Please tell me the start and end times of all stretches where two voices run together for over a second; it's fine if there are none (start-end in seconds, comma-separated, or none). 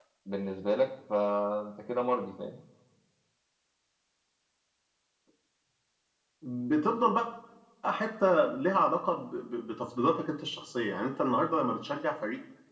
none